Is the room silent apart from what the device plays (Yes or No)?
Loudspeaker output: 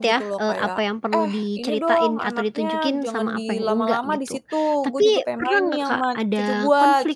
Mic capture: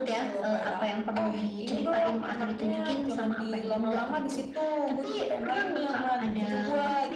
Yes